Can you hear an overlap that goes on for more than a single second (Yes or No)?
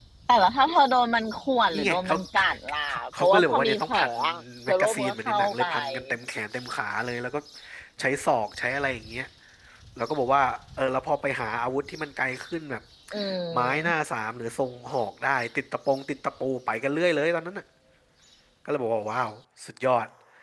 Yes